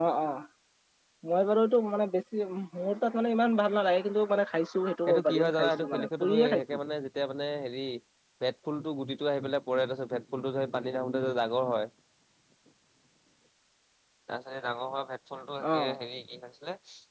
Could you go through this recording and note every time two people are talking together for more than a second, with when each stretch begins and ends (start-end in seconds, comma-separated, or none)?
5.1-6.6